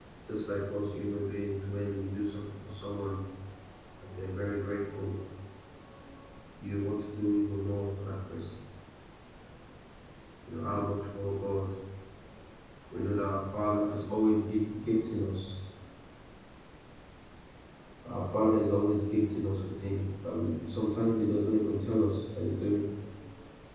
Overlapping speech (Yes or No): No